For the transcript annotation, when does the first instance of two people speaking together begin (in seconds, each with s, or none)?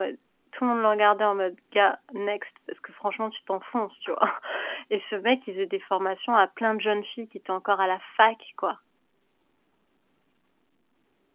none